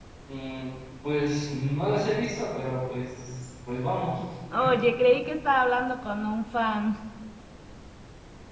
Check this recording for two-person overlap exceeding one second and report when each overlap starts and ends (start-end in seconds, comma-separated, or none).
none